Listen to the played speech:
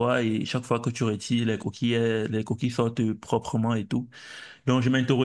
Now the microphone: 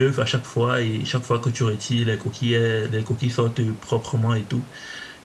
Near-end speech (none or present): none